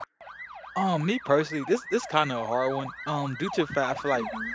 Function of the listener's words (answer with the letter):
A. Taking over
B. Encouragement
B